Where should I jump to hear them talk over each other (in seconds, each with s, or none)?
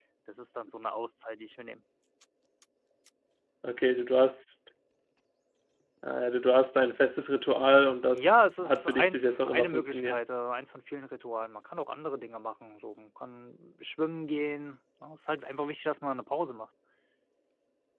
8.1 s